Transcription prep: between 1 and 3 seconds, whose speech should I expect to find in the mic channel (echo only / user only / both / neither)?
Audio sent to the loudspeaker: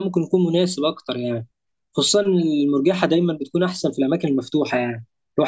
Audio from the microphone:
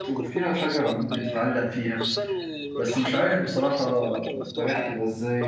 both